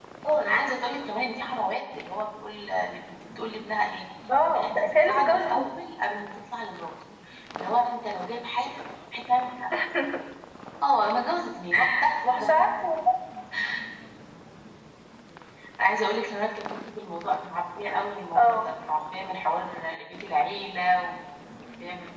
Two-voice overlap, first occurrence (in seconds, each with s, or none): 4.5 s